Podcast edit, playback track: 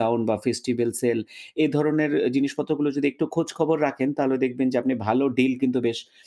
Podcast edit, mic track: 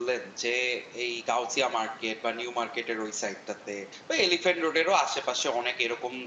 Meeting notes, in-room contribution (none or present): present